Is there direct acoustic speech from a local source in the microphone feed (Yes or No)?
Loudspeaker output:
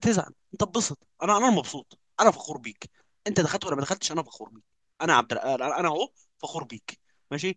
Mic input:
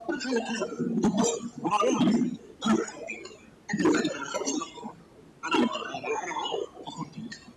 No